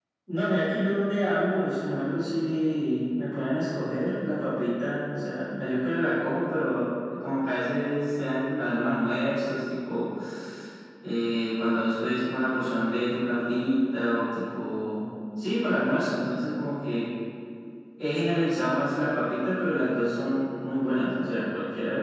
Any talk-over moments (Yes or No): No